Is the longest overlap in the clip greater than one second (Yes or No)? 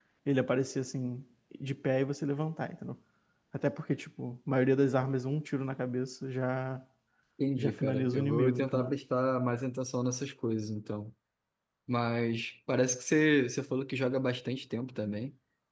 Yes